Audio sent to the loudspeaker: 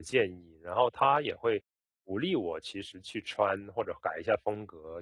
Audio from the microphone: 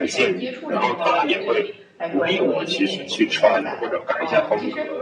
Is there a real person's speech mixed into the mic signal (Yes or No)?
Yes